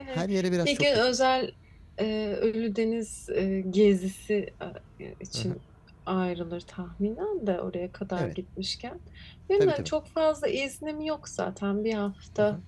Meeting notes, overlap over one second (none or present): none